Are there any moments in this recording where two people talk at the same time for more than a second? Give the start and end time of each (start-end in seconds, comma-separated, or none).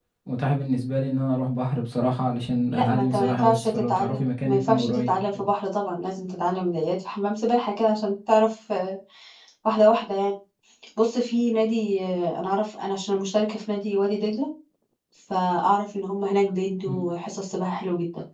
2.7-5.5